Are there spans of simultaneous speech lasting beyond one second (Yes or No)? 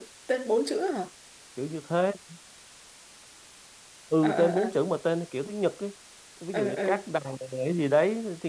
No